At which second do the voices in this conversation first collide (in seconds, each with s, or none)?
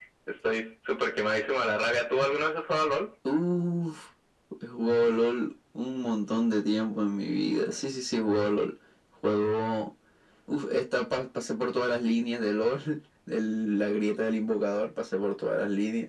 none